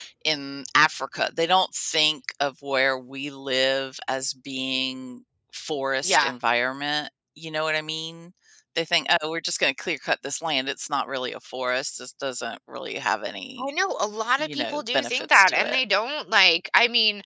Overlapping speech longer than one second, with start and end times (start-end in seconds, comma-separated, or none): 14.4-15.8